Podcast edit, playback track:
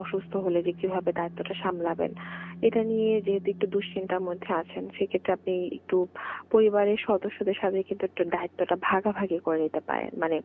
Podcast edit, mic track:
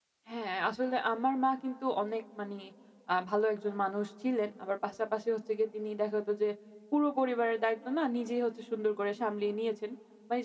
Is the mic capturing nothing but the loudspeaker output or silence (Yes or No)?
No